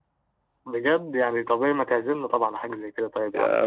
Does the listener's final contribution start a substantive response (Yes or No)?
Yes